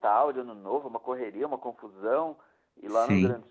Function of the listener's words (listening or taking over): listening